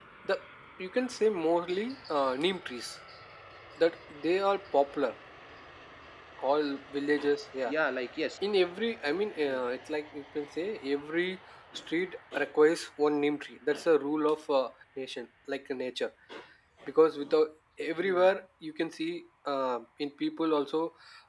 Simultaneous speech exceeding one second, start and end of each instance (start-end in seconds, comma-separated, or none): none